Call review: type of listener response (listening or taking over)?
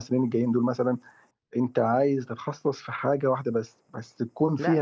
taking over